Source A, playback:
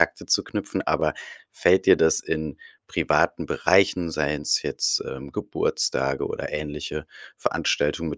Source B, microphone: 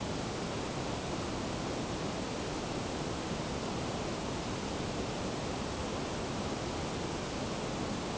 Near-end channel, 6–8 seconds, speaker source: neither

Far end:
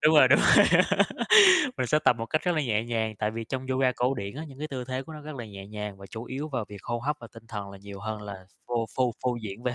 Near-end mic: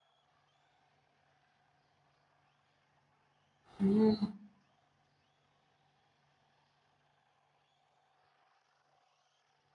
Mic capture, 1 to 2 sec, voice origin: neither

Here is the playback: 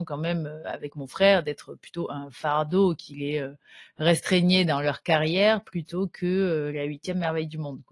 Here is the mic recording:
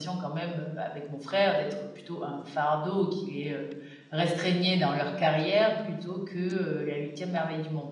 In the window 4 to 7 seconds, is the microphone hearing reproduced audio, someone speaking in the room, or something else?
echo only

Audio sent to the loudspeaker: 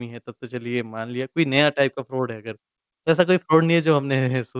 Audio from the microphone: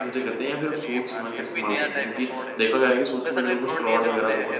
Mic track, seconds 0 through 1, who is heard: both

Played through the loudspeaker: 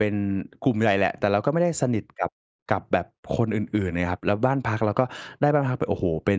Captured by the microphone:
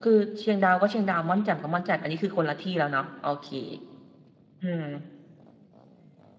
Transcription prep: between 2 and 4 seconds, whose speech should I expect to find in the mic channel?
user only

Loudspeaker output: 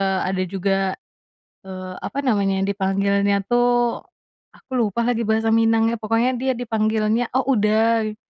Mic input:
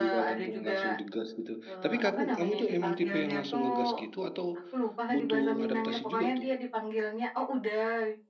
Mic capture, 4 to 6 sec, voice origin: both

